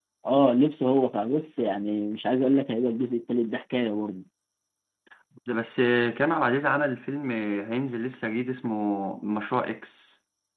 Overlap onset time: none

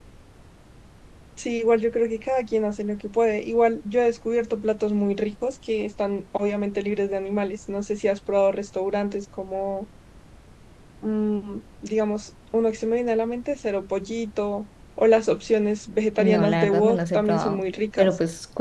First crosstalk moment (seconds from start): 16 s

